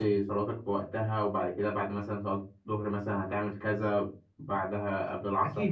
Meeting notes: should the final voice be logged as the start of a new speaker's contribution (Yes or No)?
Yes